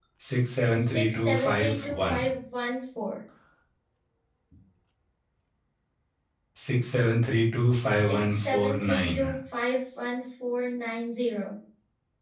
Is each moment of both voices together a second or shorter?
No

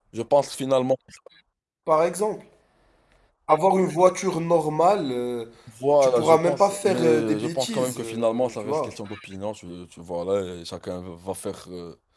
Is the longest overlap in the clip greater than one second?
Yes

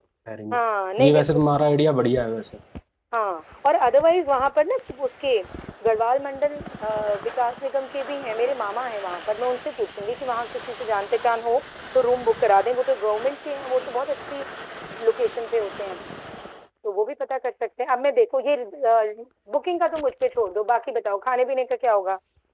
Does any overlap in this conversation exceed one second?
No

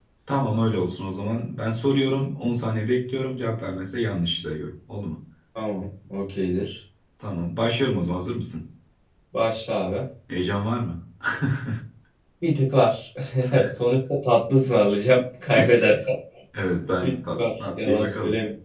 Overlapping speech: Yes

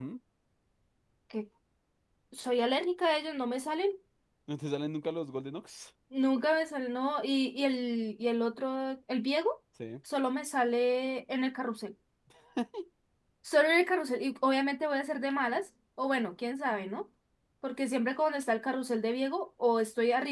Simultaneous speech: No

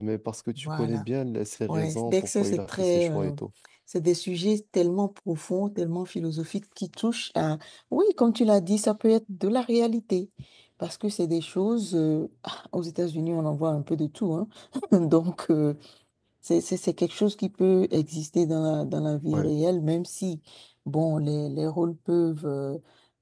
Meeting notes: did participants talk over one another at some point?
Yes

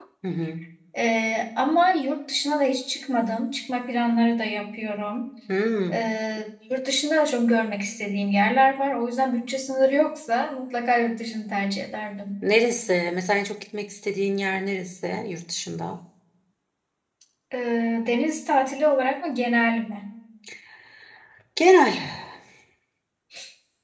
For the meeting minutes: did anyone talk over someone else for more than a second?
No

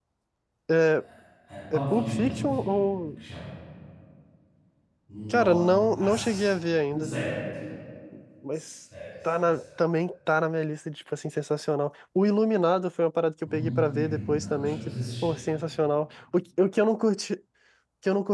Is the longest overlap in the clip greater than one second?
Yes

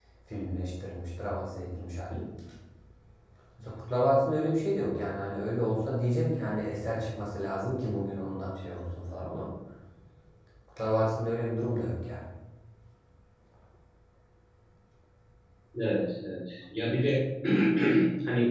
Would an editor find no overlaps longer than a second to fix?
Yes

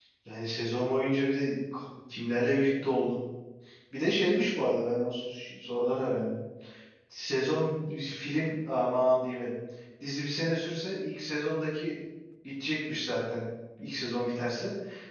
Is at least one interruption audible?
No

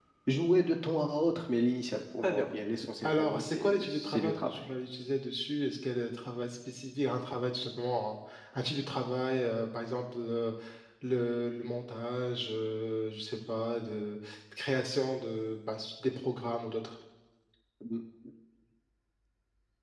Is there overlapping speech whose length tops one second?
Yes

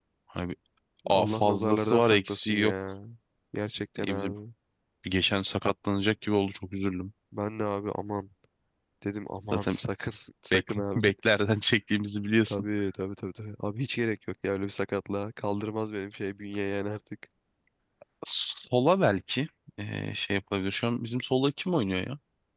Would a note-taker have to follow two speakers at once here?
Yes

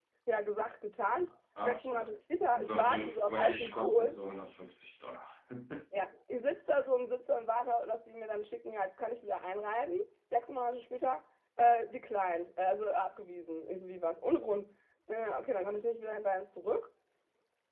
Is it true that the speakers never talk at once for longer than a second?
No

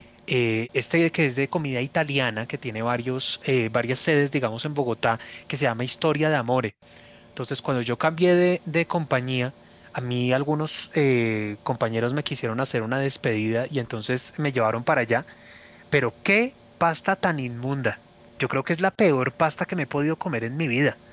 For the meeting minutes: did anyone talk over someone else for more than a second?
No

